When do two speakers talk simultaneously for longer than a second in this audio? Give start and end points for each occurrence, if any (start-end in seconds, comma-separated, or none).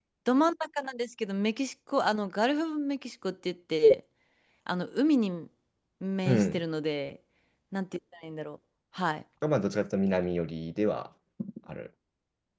none